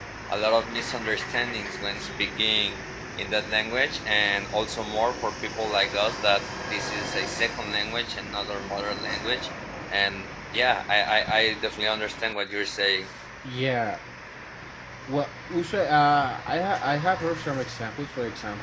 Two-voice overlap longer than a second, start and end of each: none

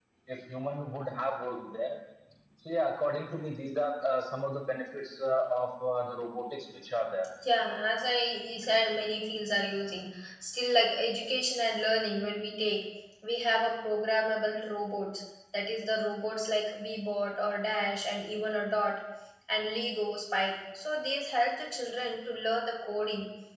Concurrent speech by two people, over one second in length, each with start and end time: none

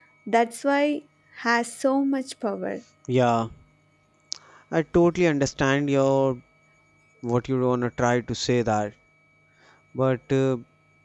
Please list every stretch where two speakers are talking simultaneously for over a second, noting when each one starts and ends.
none

